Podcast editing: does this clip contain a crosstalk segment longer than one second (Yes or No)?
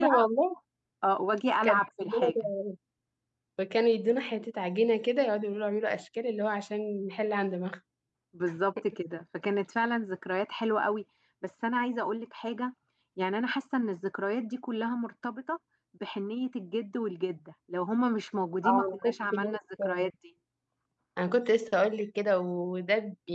Yes